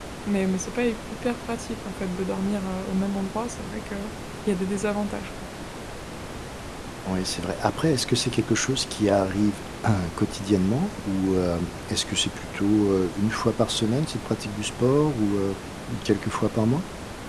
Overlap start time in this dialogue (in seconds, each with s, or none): none